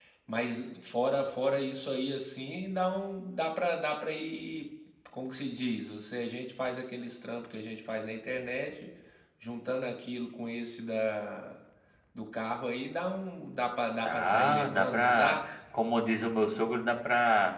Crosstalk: present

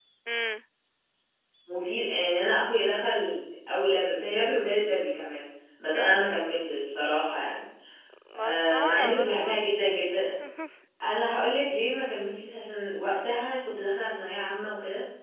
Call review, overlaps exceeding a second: present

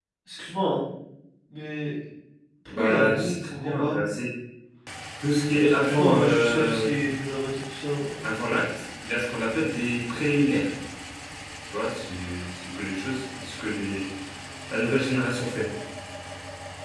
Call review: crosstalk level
present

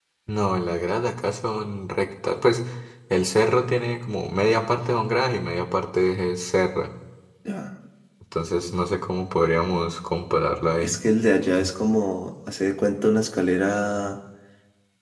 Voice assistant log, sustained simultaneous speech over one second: none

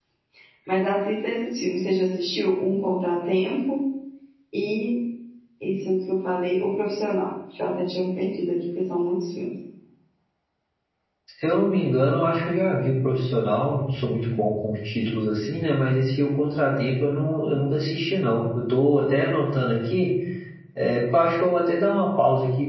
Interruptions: none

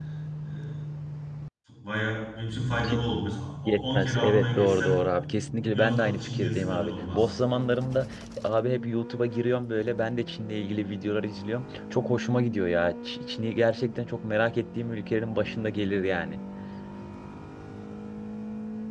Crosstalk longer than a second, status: present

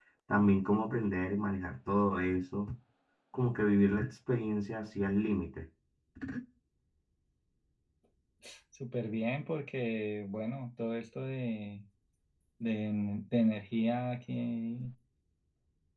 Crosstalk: none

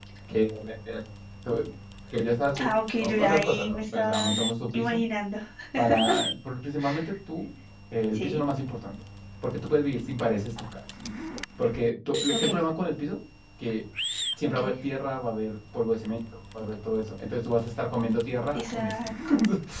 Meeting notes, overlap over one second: present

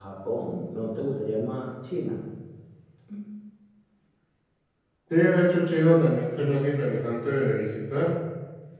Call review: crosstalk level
none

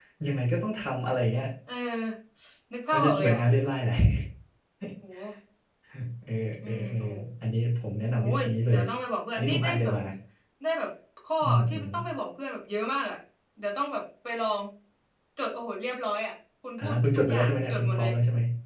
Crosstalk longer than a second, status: present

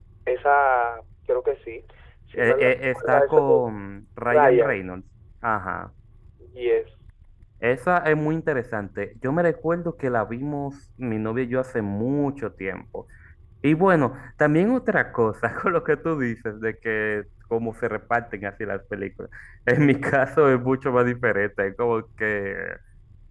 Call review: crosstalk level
present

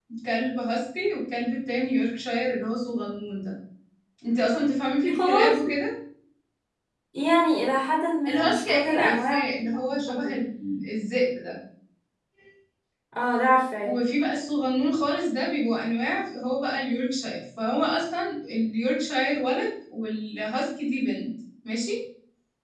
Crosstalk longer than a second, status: present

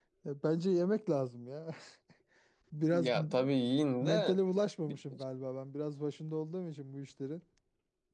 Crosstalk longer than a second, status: none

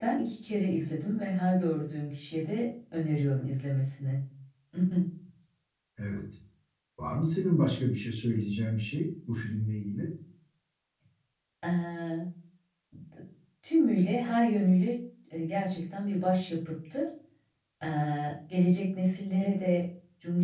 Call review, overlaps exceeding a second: none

